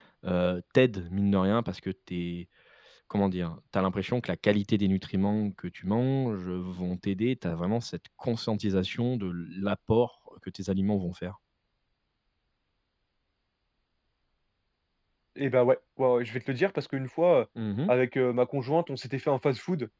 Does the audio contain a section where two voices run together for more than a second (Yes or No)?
No